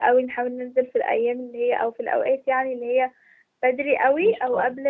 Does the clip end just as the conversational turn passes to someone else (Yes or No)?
No